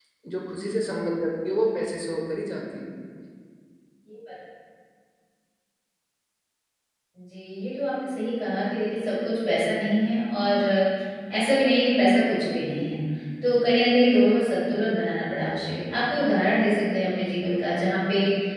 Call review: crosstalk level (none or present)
none